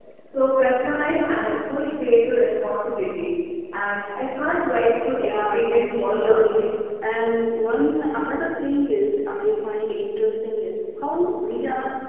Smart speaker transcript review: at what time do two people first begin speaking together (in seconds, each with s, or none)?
5.2 s